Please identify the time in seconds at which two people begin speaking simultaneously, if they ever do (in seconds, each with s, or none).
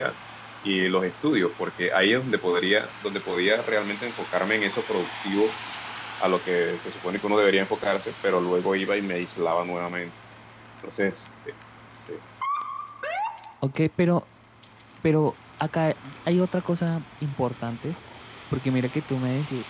none